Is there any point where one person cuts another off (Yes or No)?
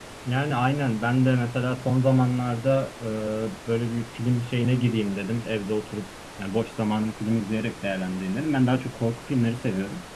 No